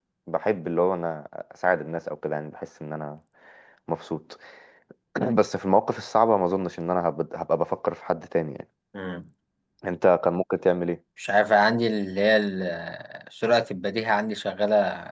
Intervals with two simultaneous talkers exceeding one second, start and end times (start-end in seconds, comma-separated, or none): none